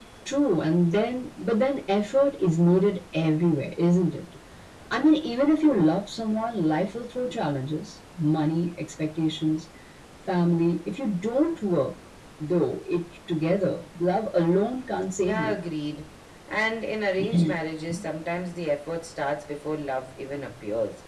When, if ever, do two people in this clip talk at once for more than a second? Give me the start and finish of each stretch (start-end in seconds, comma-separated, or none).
none